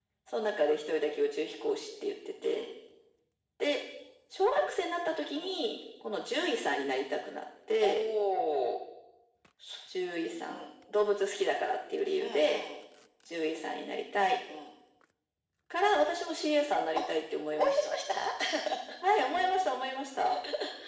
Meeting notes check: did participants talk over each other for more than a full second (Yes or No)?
No